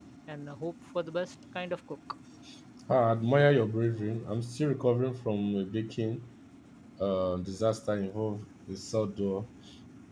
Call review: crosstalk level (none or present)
none